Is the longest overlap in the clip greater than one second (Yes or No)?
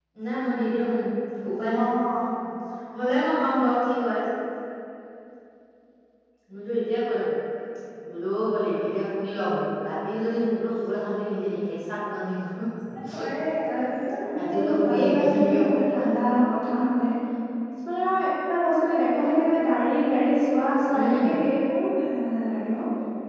Yes